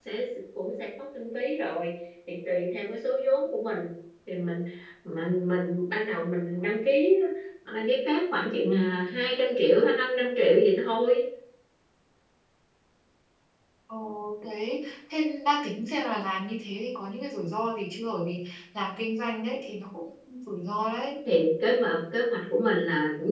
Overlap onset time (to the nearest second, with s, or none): none